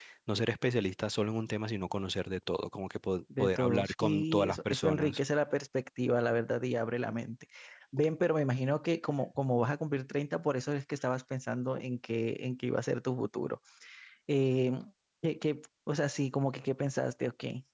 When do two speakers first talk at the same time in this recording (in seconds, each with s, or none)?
3.3 s